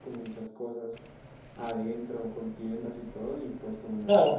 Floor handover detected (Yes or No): Yes